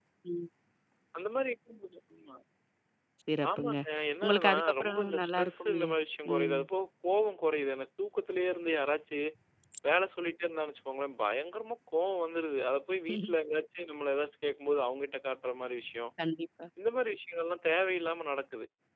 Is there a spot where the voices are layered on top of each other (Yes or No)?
Yes